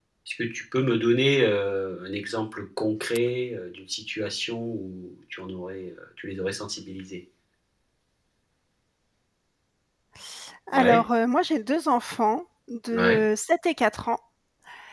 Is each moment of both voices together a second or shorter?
Yes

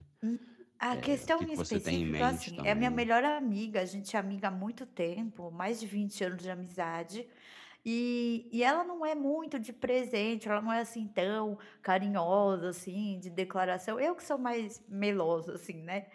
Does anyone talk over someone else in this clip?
Yes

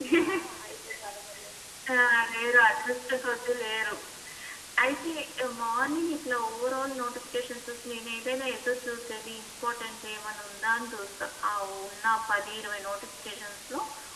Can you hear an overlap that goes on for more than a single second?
No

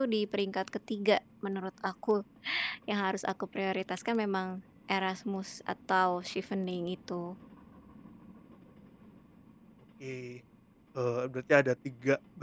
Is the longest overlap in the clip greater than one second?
No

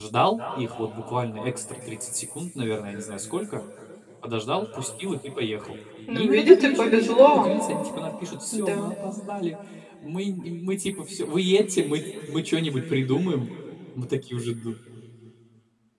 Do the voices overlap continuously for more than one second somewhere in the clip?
Yes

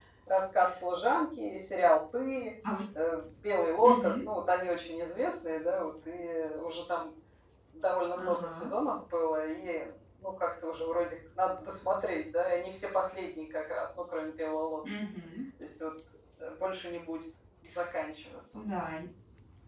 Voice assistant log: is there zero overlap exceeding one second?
Yes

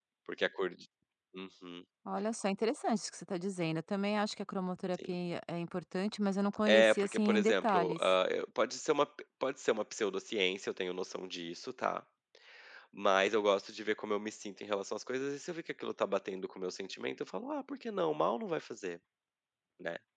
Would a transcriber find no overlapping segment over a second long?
No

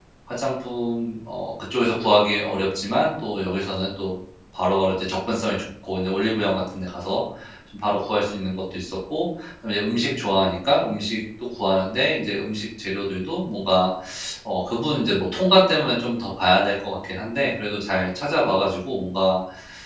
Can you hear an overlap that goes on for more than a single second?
No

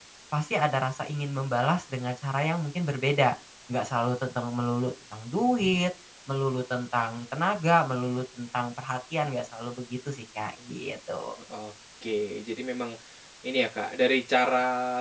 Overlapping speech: No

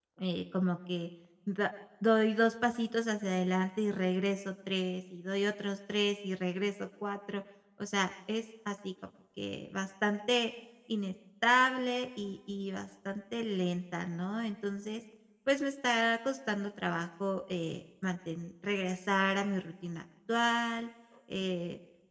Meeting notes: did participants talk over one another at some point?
No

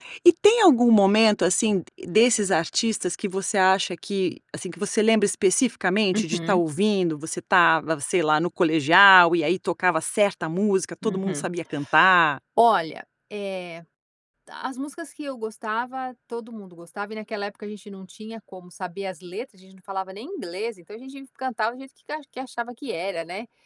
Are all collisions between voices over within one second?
Yes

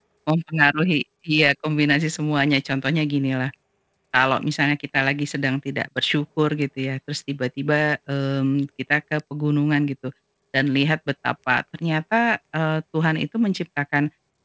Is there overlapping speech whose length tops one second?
No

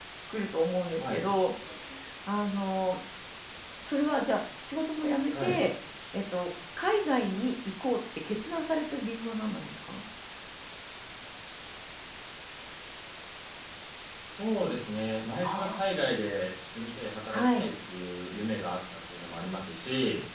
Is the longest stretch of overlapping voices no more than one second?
Yes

